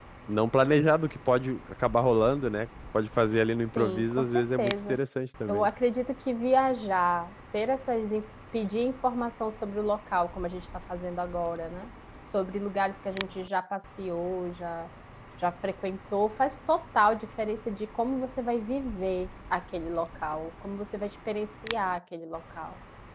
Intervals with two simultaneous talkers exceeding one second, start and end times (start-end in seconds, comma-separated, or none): 3.8-5.0